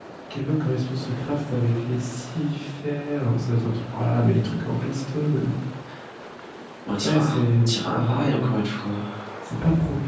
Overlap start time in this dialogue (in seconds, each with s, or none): 7.0 s